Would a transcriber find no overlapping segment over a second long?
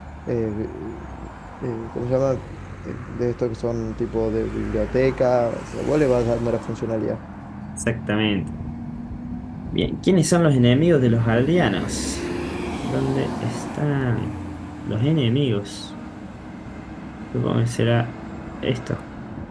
Yes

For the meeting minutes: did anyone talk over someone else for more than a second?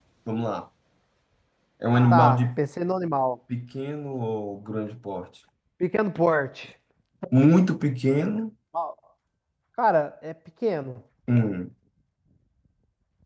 No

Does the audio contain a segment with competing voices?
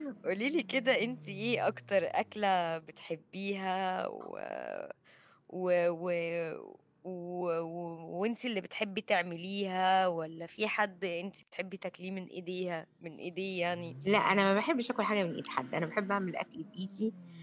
No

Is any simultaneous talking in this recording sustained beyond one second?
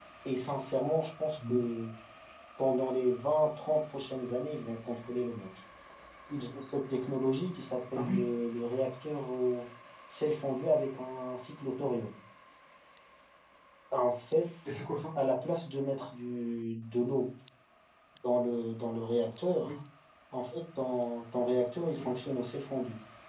No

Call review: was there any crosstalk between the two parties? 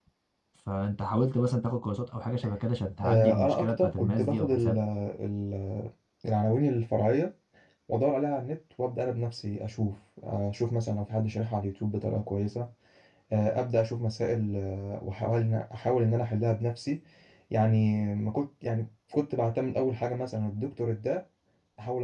Yes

